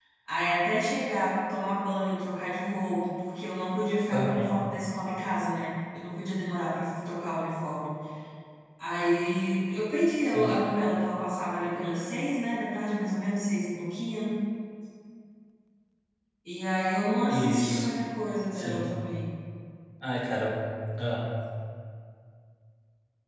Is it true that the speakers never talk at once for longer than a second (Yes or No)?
Yes